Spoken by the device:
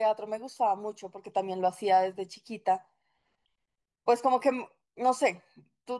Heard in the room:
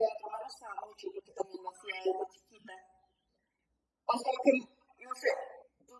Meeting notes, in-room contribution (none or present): none